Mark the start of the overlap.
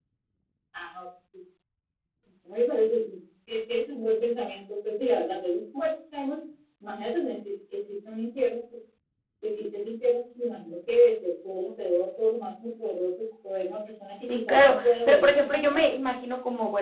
14.3 s

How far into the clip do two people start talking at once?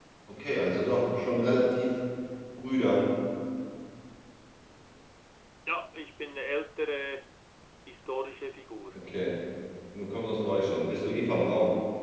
none

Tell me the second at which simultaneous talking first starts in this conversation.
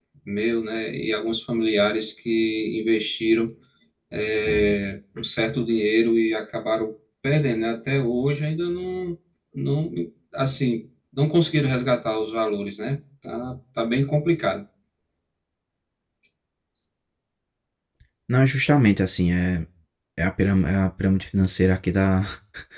none

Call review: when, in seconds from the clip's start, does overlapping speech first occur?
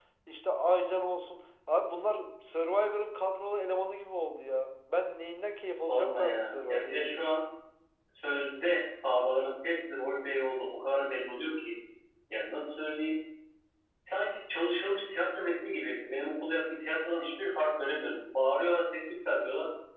5.8 s

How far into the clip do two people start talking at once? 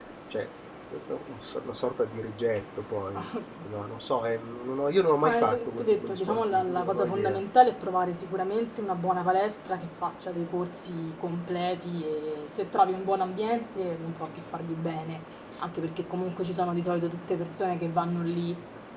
5.2 s

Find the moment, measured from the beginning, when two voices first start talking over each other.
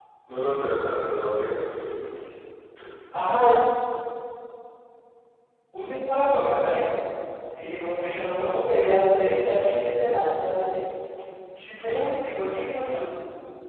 none

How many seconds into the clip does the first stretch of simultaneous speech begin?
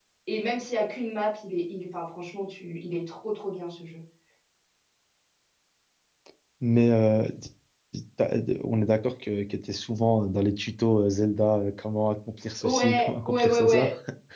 12.6 s

